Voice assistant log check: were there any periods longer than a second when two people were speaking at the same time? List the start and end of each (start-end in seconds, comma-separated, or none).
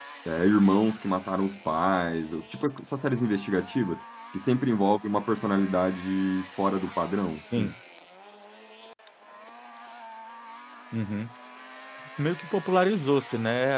none